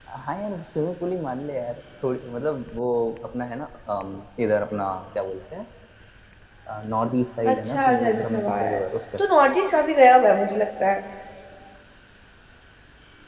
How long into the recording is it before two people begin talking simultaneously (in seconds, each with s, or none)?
7.5 s